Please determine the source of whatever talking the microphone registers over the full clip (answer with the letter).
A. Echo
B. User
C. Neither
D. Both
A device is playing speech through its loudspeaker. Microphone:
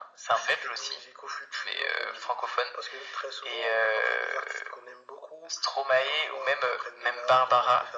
A